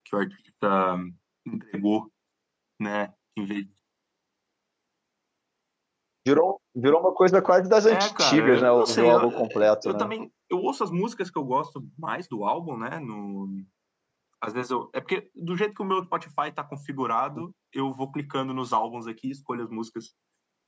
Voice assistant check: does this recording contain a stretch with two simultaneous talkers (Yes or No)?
Yes